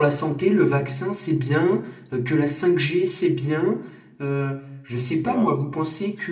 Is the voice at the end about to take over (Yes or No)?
No